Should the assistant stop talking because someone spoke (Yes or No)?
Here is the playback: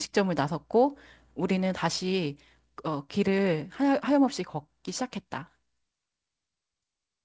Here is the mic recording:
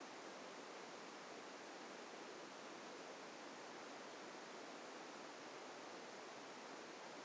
No